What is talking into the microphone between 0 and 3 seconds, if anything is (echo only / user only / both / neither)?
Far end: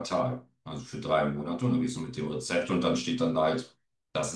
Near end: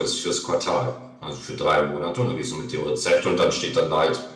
echo only